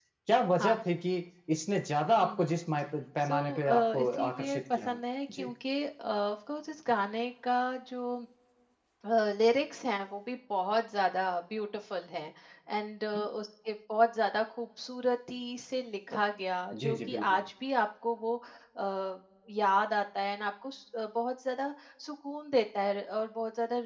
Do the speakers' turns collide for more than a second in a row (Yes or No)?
Yes